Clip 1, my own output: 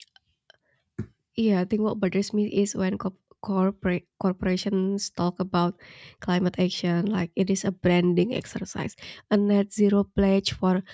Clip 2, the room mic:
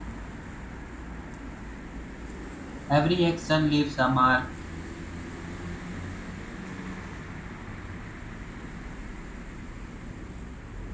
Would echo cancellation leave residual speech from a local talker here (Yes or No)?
Yes